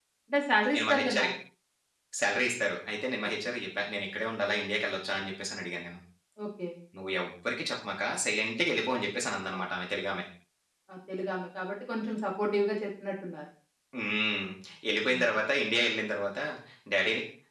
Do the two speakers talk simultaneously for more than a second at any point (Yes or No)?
No